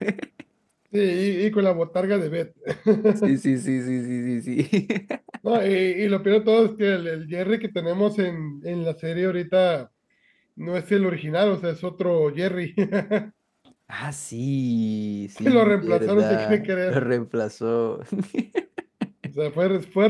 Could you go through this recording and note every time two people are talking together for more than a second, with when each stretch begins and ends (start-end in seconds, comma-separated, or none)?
15.4-17.1